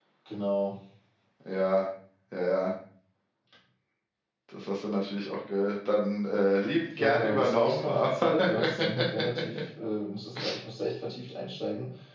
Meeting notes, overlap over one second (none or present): present